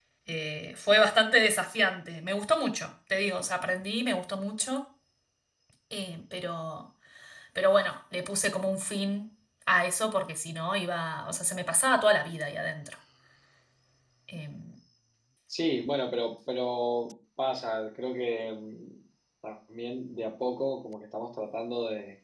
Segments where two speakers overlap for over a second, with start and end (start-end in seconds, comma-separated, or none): none